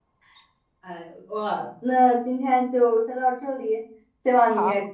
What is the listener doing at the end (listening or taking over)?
listening